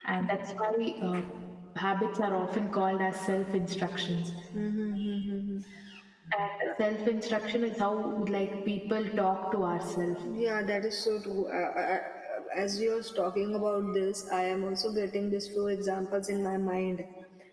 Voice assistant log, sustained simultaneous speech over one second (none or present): none